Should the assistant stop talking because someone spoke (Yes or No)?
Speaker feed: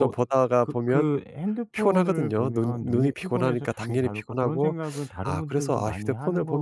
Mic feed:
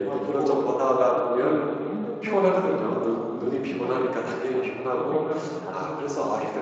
No